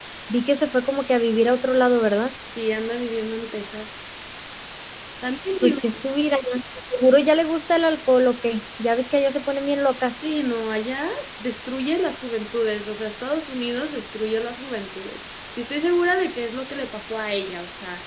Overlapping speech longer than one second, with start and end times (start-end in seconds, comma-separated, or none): none